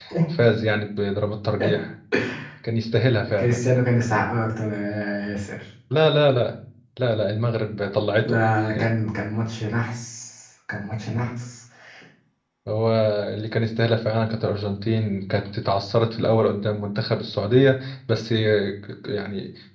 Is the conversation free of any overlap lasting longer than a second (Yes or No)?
Yes